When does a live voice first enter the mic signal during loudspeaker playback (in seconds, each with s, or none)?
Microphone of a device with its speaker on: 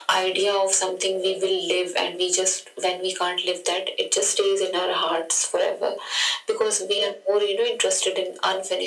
none